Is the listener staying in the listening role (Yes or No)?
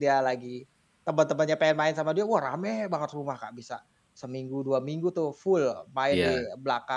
Yes